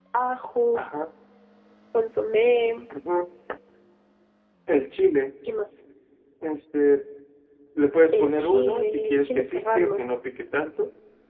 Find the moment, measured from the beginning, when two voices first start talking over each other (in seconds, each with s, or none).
8.1 s